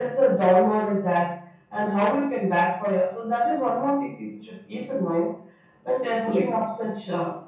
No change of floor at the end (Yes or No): Yes